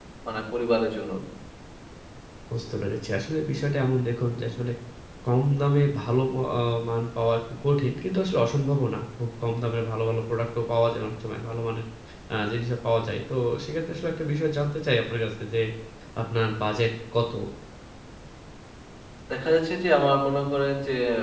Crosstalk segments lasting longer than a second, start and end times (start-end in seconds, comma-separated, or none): none